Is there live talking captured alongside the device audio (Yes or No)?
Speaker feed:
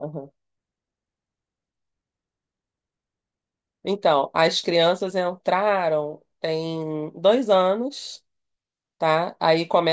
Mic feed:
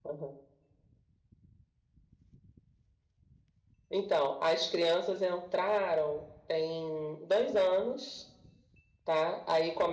No